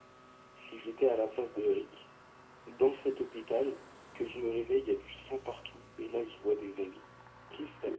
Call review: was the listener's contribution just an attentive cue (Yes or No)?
Yes